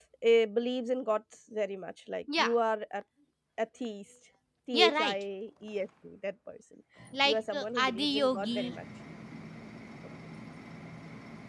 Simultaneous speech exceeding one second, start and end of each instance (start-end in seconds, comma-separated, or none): 7.2-8.6